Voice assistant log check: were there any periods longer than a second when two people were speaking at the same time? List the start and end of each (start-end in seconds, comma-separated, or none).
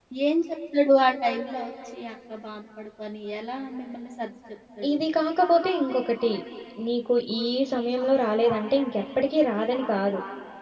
none